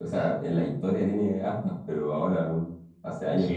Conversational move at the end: taking over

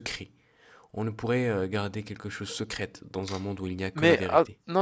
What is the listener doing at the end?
taking over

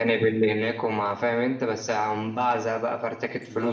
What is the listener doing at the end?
taking over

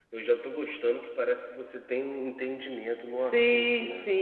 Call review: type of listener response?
taking over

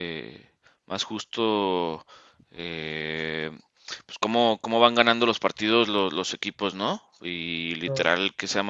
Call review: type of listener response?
listening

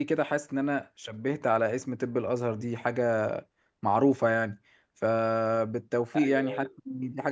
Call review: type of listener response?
listening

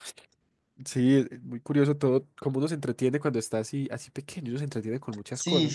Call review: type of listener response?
taking over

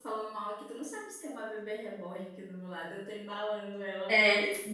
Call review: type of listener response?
taking over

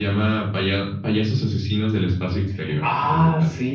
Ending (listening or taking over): taking over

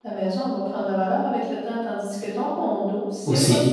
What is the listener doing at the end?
taking over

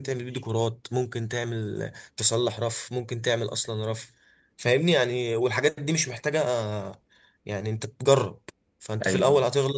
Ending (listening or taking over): listening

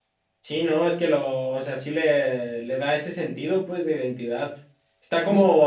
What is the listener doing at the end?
listening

